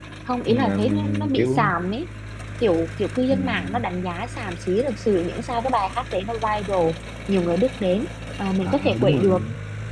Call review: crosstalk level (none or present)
present